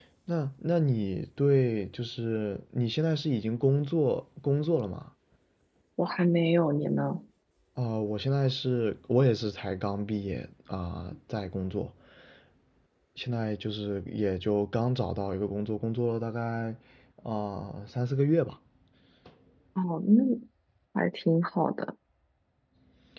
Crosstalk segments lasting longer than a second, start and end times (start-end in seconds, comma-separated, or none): none